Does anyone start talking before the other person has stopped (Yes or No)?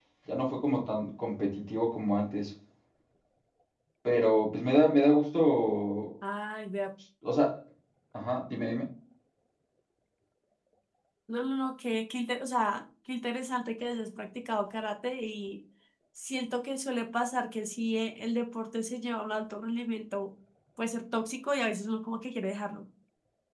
No